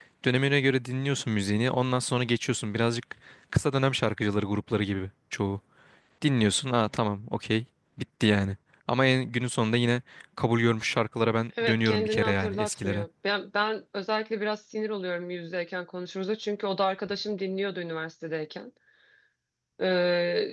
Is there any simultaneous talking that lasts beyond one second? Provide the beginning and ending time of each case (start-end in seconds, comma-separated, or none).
11.6-13.1